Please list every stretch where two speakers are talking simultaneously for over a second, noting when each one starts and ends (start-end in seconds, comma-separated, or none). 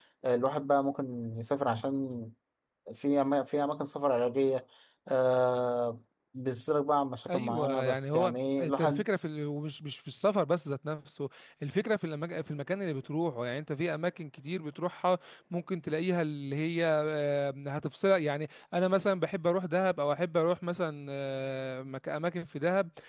7.3-9.1